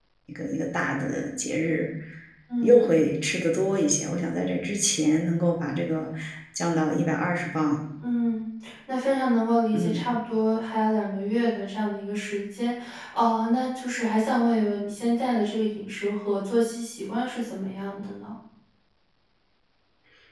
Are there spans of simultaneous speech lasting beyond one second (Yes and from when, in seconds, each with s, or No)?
No